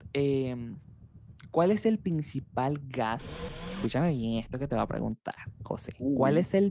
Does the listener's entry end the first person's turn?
No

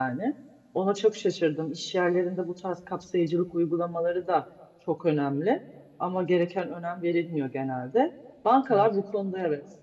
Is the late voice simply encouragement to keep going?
Yes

